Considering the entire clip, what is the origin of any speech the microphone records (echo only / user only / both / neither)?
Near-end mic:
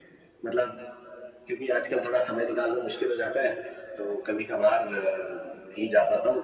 echo only